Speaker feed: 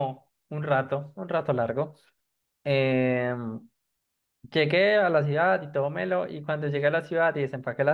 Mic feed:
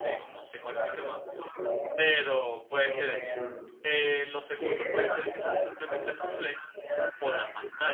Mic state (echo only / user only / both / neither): both